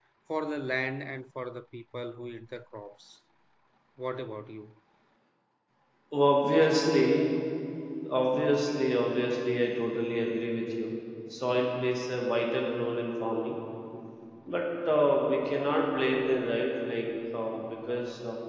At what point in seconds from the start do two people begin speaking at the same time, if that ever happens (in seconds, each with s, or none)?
none